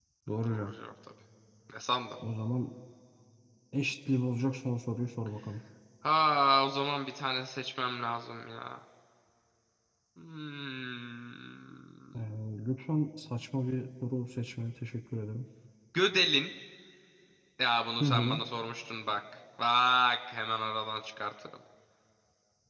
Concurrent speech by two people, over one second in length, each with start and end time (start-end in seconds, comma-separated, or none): none